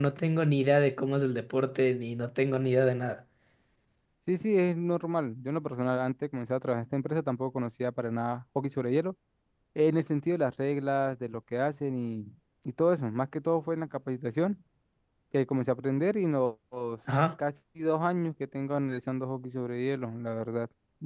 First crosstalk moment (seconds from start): none

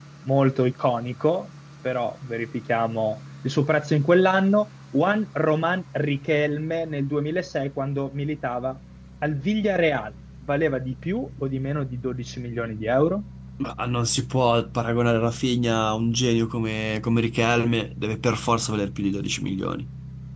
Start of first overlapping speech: none

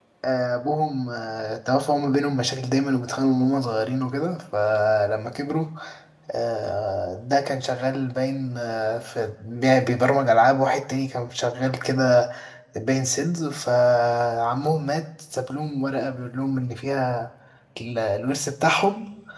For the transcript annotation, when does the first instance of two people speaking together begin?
none

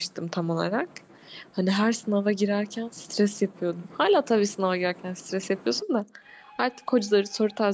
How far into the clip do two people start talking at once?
none

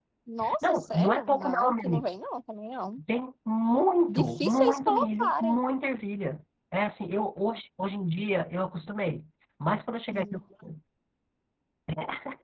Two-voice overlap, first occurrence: 0.7 s

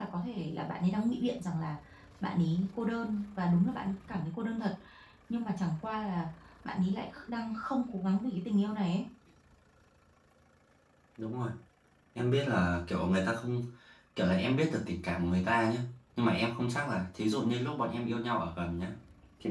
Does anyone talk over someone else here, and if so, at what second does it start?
none

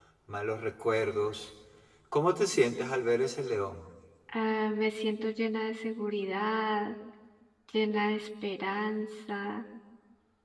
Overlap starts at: none

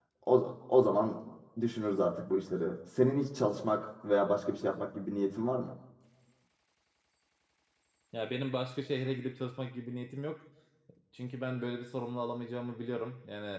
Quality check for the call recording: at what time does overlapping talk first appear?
none

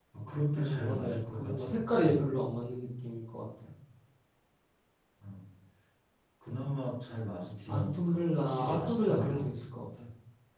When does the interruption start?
0.6 s

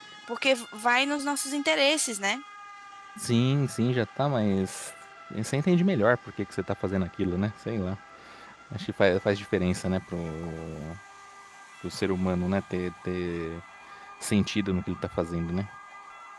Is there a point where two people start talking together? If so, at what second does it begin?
none

